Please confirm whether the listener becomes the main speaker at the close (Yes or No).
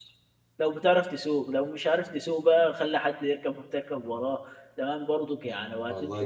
No